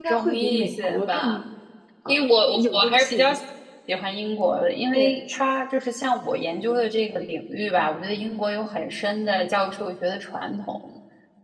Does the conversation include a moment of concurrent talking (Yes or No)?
Yes